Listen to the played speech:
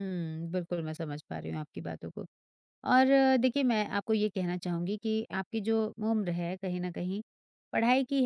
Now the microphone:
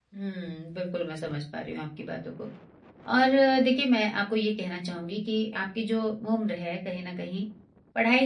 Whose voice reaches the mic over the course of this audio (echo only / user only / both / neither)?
echo only